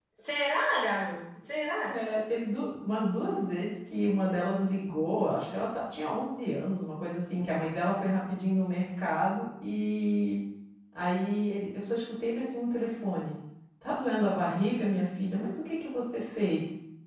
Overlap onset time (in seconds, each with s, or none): none